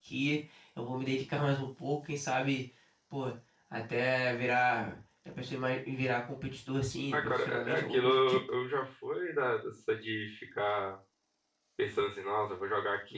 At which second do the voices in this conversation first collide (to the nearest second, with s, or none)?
7 s